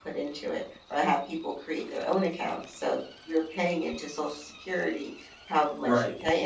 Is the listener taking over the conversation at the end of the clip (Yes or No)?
No